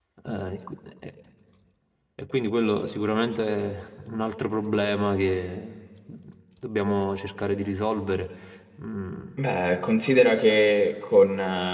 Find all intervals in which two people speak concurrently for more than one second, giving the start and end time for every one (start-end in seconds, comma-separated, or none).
none